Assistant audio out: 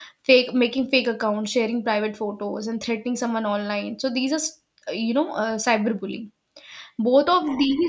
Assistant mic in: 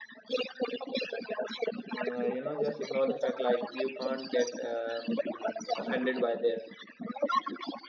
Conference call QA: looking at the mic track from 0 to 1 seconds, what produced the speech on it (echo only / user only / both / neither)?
echo only